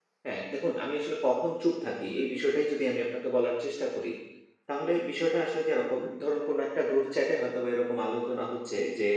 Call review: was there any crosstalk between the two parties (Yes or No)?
No